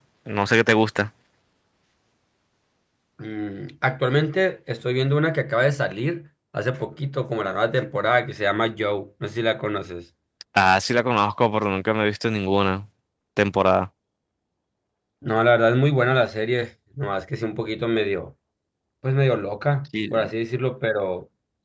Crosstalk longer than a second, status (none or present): none